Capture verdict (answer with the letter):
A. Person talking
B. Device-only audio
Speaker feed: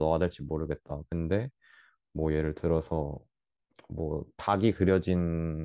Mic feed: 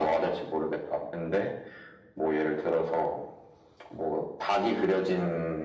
B